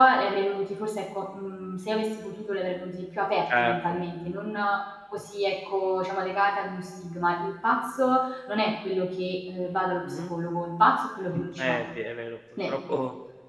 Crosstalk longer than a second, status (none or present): none